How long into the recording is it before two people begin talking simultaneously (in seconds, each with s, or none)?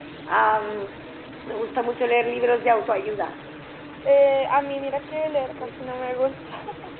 none